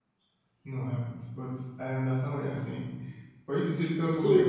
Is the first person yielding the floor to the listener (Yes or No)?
No